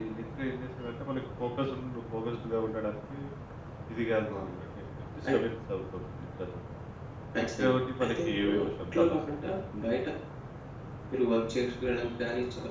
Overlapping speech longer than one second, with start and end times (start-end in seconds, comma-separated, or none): 7.6-9.2